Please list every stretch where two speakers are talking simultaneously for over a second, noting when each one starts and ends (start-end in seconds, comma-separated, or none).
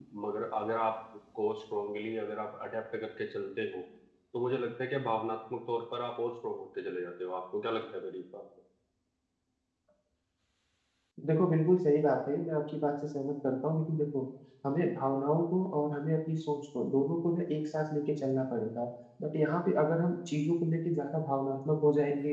none